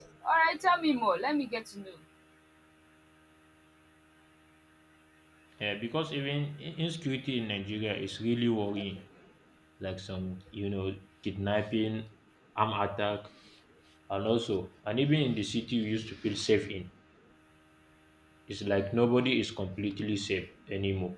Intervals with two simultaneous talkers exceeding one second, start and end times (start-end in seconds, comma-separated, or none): none